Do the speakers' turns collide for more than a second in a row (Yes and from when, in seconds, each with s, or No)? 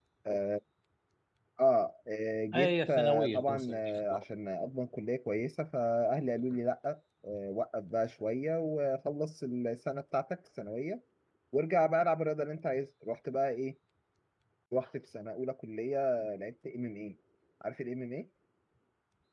Yes, from 2.5 s